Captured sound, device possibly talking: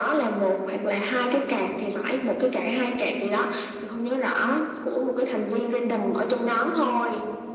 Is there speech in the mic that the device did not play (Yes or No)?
No